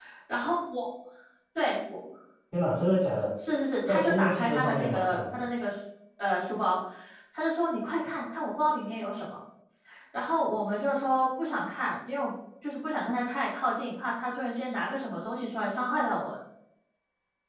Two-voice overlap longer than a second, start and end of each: 3.8-5.4

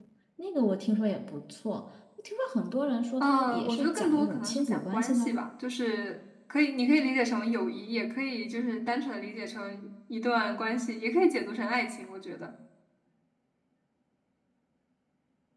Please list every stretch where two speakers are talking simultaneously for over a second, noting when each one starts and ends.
3.2-5.4

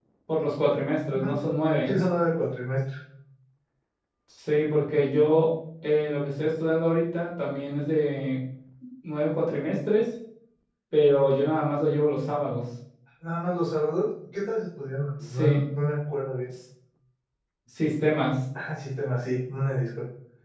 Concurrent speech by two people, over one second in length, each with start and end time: none

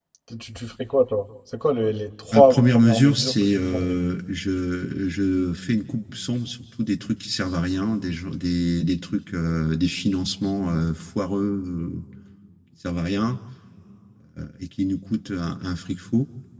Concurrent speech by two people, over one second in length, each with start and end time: 2.3-4.0

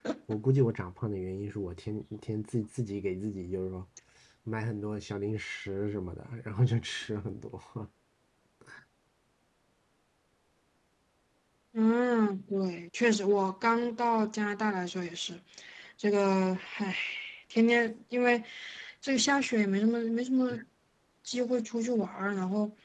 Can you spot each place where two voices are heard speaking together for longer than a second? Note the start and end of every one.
none

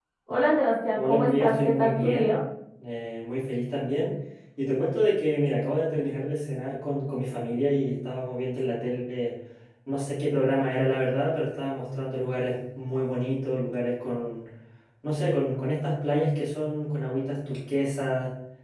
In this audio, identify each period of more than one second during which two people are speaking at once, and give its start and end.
0.9-2.4

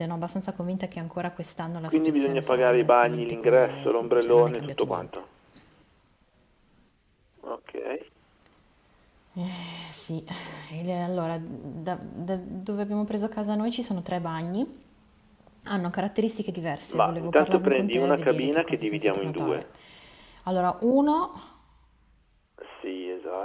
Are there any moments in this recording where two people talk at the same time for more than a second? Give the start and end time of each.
1.9-5.1, 16.9-19.6

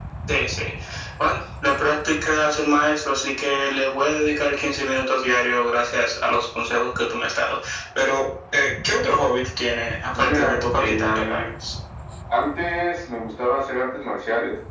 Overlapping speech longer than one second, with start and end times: 10.2-11.4

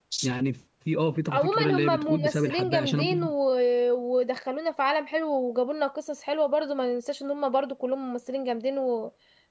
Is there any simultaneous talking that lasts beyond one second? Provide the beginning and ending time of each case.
1.3-3.3

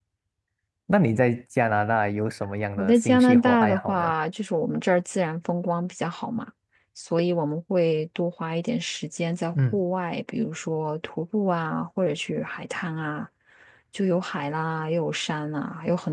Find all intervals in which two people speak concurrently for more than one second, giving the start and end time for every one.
2.8-4.1

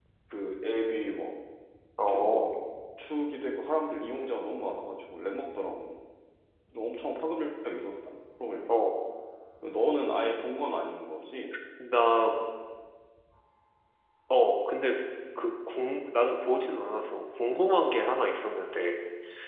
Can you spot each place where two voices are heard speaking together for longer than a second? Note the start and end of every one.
none

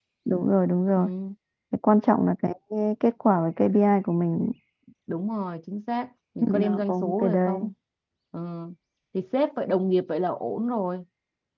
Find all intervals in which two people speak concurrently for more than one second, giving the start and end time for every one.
6.4-7.7

